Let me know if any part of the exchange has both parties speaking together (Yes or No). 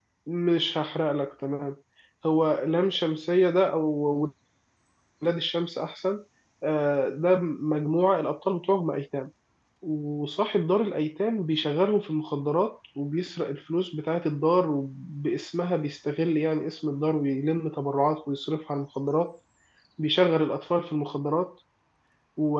No